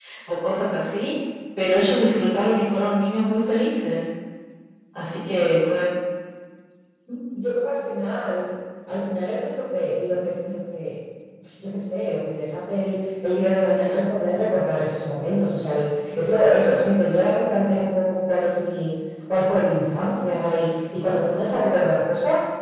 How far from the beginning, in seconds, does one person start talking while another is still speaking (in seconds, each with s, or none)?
none